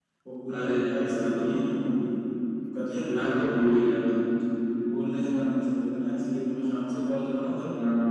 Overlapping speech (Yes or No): Yes